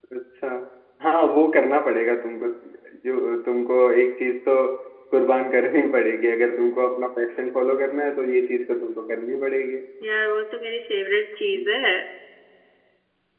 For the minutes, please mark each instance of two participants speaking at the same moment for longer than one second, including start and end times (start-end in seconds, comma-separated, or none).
none